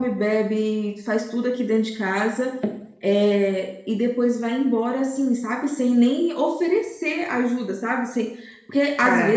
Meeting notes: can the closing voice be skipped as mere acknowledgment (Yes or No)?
Yes